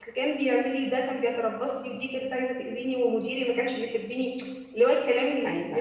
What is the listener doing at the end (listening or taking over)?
taking over